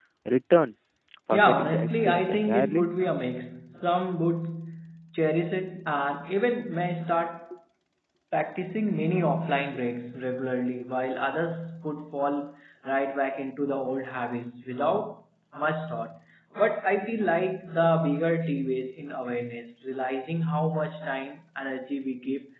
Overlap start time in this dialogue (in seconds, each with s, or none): 1.3 s